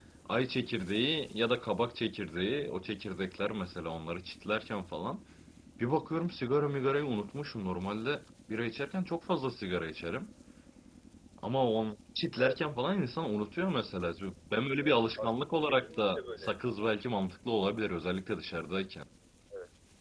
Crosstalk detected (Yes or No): Yes